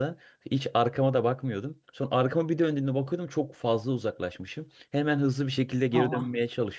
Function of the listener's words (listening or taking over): listening